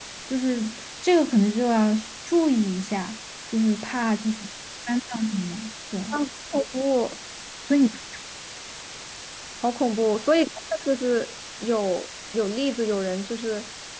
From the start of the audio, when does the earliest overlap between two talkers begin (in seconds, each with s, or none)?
none